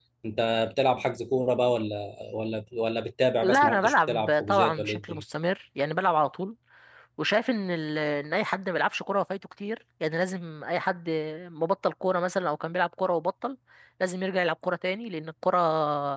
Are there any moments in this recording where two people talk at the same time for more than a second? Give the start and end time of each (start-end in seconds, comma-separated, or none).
3.4-5.2